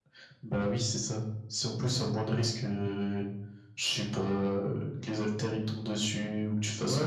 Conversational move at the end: taking over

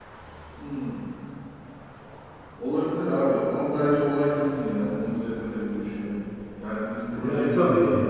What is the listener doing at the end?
listening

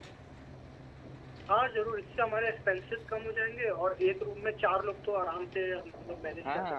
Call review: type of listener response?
taking over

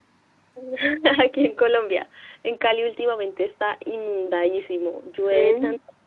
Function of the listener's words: listening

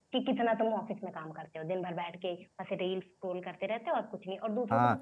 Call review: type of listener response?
taking over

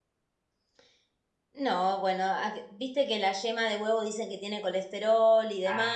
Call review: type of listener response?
taking over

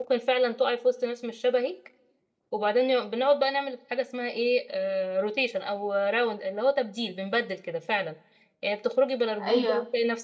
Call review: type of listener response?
listening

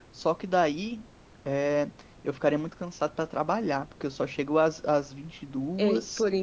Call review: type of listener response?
taking over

